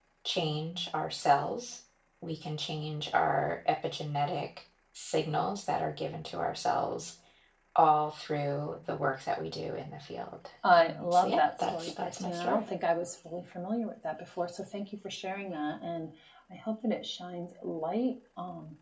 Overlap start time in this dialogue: 11 s

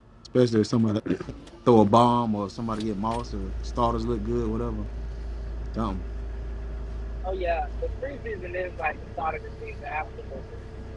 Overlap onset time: none

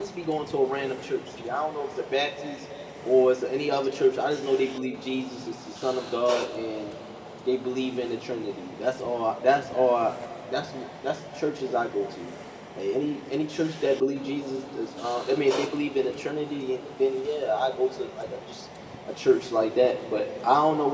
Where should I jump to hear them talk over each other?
none

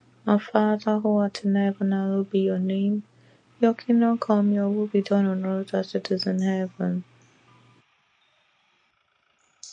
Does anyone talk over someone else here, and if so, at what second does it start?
none

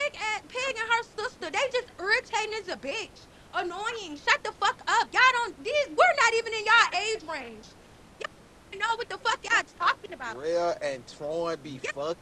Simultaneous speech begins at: none

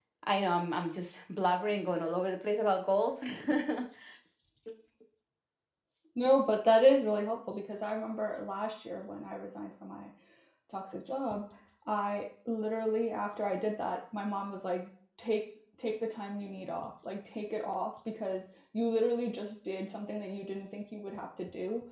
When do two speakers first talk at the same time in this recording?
none

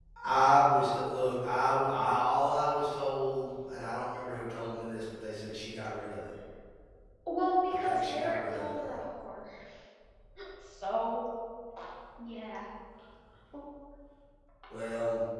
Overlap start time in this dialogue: 8 s

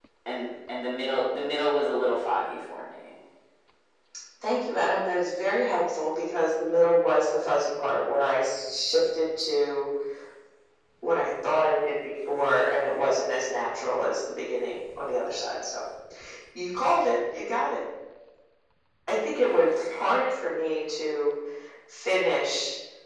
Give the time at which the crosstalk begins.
none

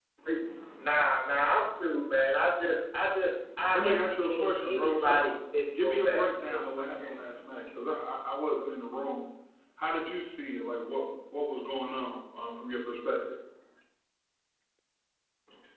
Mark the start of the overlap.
4 s

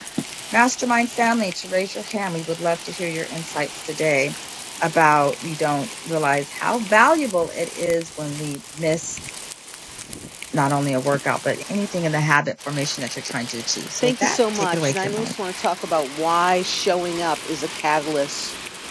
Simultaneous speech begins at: 14 s

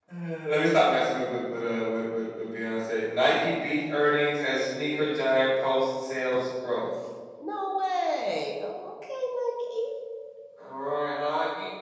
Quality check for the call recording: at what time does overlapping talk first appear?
none

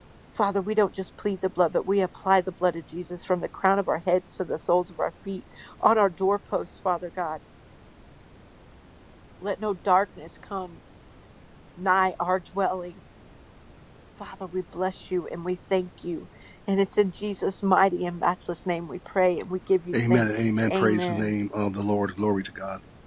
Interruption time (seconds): 20 s

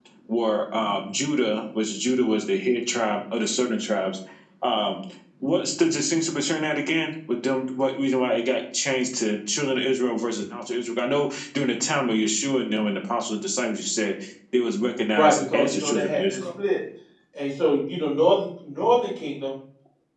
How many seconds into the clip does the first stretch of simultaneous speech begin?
15 s

